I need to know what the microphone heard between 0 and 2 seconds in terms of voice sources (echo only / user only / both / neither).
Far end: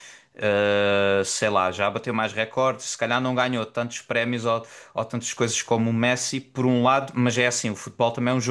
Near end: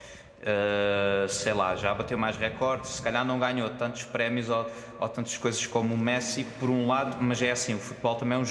echo only